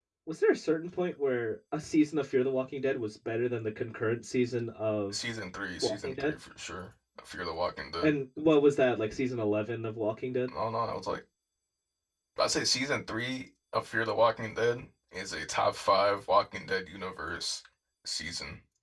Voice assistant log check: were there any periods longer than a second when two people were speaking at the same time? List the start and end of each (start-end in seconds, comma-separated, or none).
none